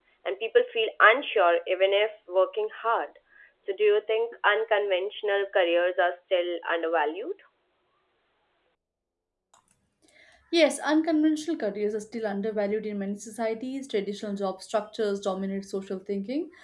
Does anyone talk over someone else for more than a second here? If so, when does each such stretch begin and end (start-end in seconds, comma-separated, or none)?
none